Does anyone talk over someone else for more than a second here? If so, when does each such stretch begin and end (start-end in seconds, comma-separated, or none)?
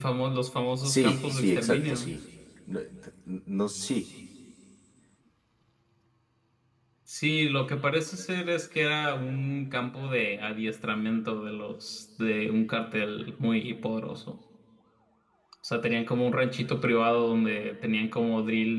0.8-2.2